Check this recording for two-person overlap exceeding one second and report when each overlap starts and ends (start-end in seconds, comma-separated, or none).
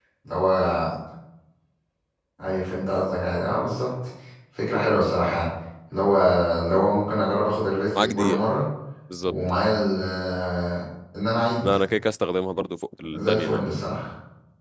none